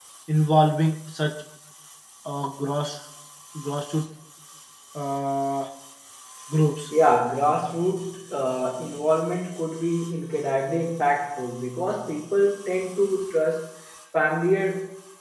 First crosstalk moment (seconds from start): none

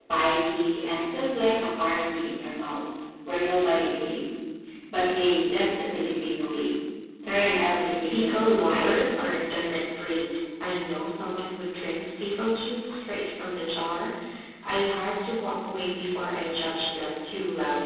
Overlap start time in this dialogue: 8.1 s

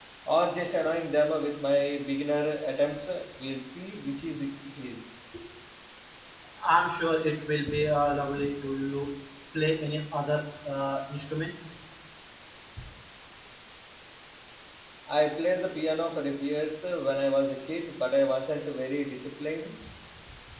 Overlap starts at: none

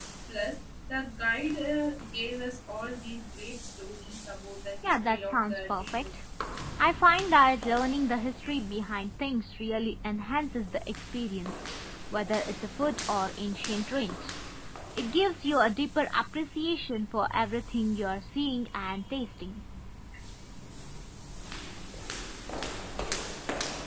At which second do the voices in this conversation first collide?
4.8 s

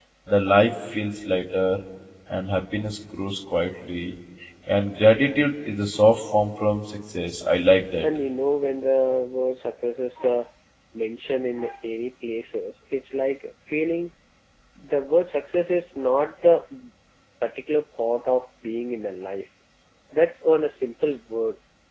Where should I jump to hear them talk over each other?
none

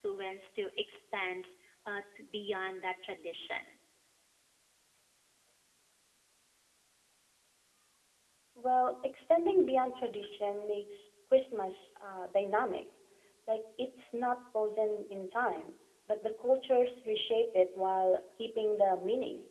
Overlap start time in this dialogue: none

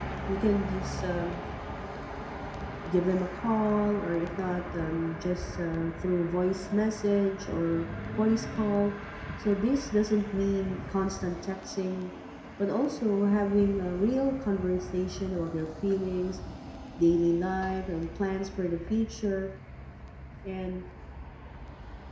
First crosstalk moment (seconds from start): none

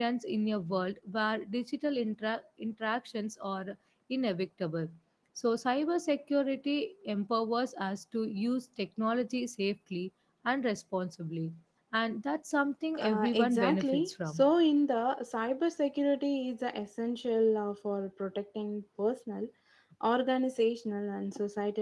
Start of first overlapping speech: 13.0 s

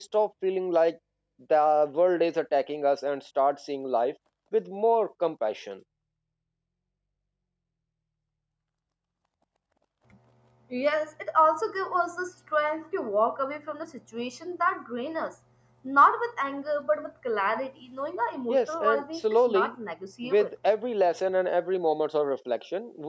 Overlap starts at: 18.5 s

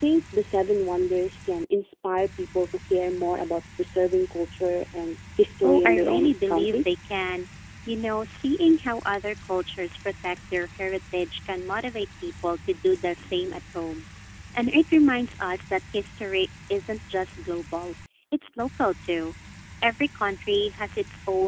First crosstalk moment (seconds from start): 5.6 s

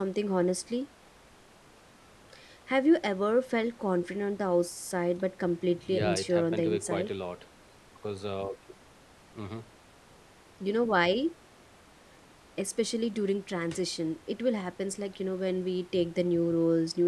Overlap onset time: 5.8 s

